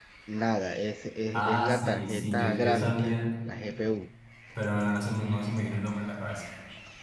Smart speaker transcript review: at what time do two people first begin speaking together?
1 s

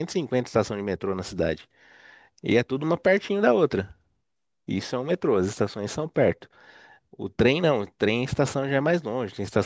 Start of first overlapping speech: none

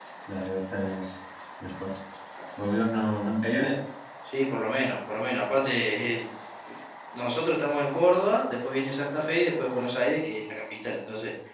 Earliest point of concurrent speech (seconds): none

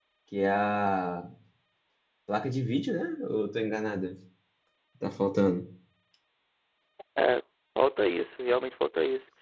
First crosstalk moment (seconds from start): none

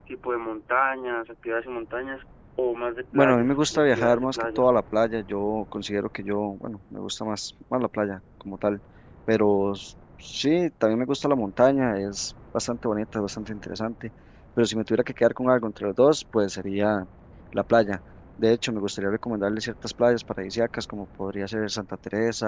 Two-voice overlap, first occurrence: 3 s

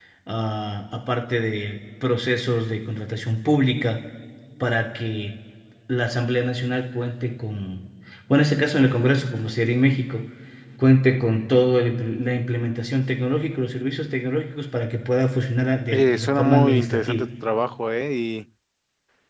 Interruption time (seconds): 16 s

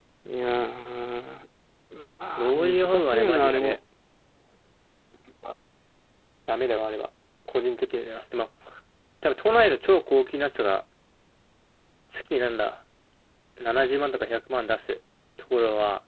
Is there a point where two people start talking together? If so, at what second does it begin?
2 s

